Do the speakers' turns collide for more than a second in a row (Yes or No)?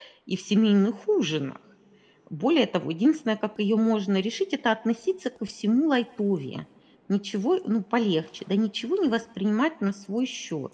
No